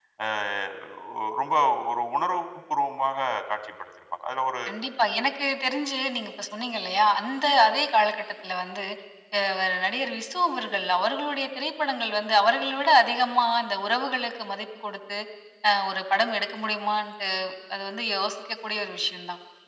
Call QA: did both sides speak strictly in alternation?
Yes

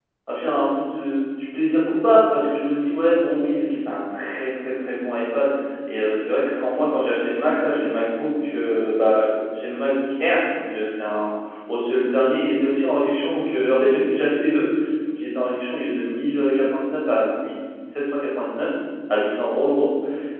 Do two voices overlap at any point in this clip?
No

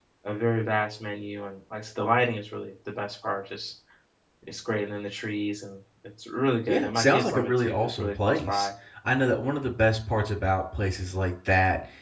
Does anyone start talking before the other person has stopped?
Yes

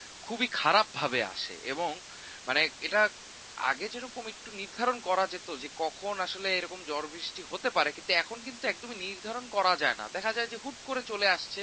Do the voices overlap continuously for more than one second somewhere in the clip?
No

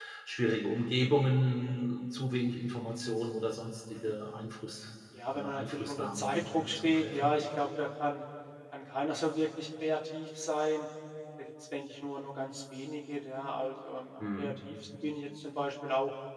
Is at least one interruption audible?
Yes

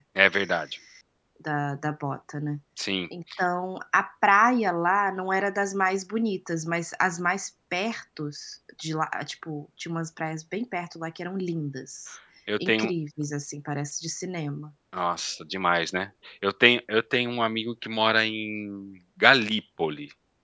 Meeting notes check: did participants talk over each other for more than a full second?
No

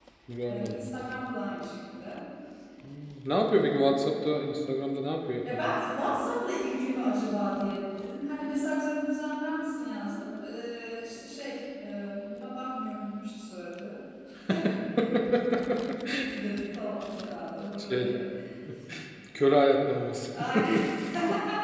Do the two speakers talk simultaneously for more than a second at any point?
No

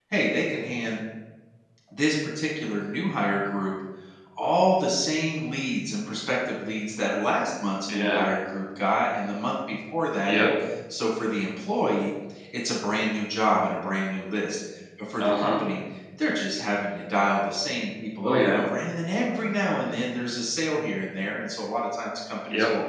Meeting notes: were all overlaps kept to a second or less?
Yes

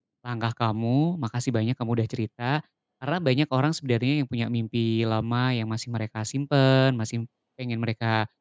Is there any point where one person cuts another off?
No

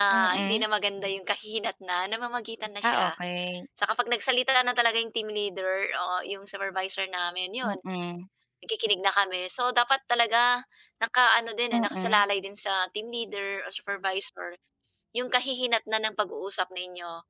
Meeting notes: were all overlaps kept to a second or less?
Yes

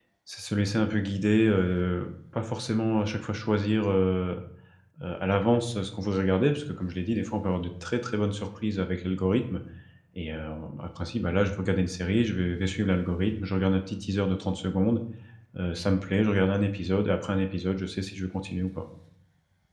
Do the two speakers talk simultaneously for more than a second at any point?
No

